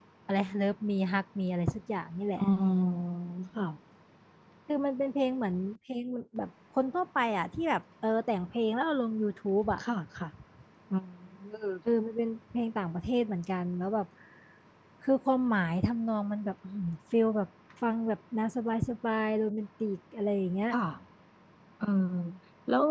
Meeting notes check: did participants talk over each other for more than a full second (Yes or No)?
No